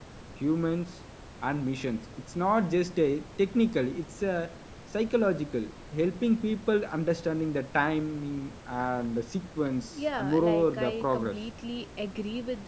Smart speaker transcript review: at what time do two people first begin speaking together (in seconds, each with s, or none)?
10.2 s